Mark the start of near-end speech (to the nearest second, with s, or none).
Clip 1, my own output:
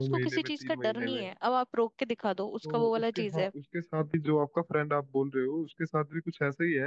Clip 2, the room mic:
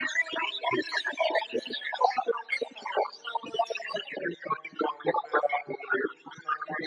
none